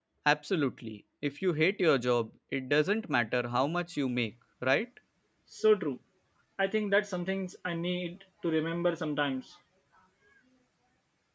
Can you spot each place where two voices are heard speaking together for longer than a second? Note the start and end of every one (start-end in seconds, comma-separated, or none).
none